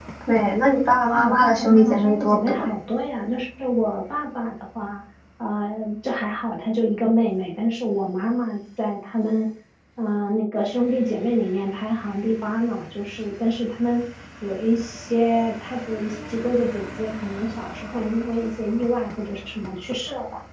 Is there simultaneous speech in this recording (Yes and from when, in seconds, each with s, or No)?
Yes, from 1.1 s